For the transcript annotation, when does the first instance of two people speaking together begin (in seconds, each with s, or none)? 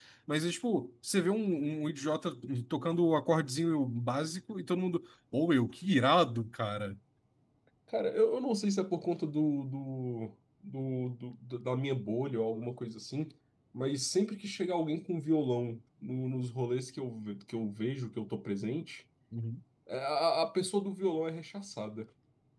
none